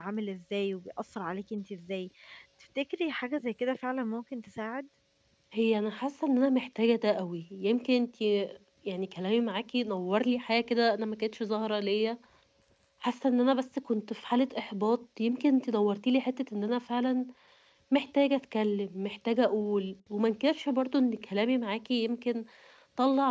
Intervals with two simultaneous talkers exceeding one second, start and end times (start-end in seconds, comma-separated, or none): none